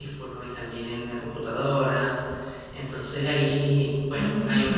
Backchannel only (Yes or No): Yes